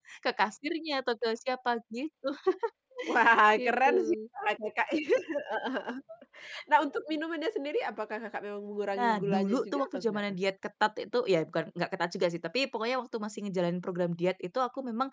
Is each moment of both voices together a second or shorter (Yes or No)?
No